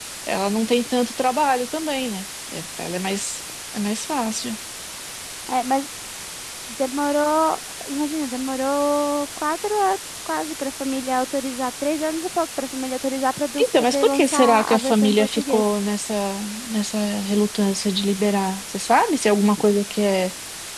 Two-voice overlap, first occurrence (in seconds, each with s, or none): 13.6 s